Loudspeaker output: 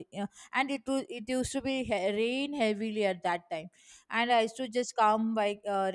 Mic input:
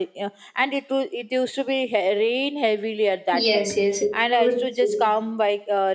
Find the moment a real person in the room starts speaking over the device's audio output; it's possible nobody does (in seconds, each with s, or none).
3.3 s